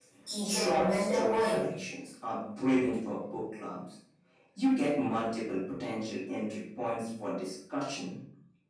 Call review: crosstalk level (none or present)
present